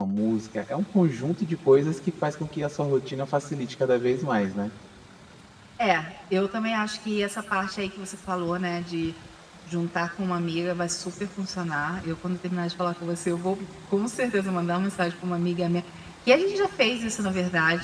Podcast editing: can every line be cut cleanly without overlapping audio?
Yes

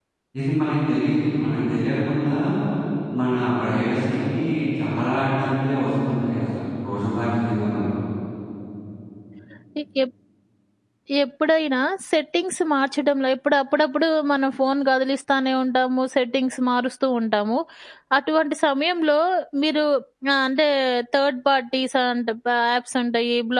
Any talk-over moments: No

